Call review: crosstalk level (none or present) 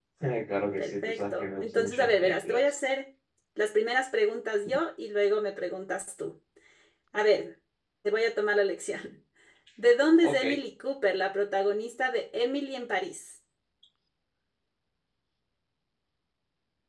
present